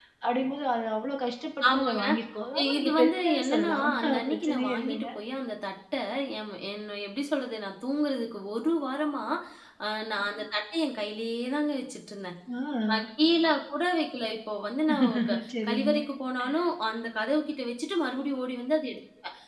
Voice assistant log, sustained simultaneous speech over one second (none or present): present